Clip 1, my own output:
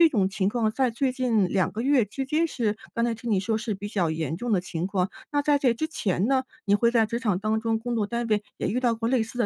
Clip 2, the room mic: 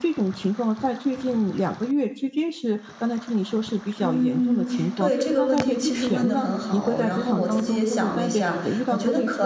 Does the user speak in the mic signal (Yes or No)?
Yes